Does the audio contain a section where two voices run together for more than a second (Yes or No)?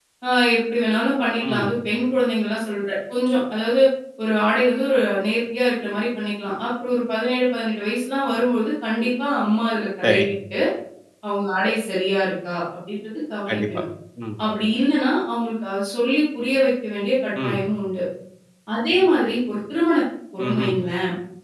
No